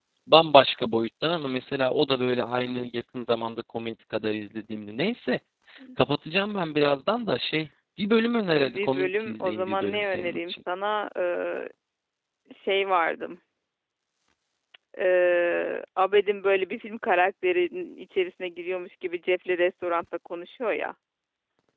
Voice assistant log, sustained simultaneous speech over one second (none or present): present